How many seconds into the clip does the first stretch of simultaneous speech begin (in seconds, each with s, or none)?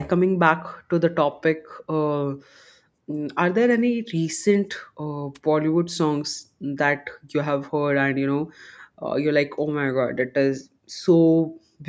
none